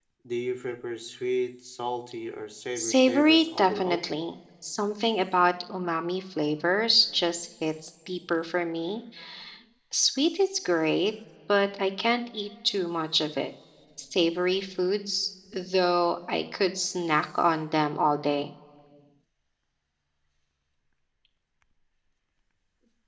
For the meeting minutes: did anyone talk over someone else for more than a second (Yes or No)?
Yes